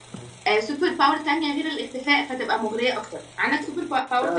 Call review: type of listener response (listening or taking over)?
taking over